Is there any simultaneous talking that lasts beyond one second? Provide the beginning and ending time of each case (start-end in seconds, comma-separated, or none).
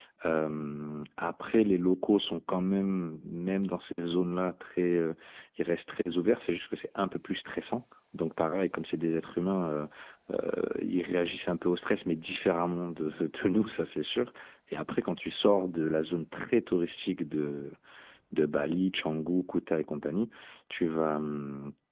none